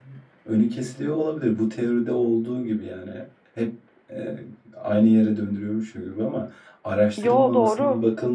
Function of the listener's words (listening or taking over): listening